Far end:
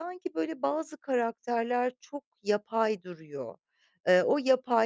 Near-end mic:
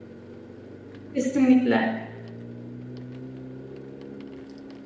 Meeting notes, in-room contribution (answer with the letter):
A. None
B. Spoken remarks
B